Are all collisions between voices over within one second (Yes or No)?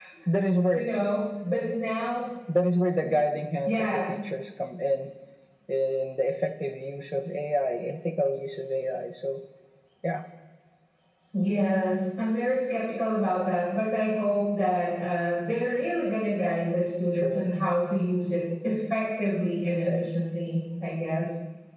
Yes